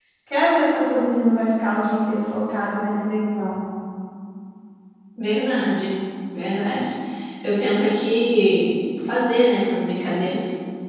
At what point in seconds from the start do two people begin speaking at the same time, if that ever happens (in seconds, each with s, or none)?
none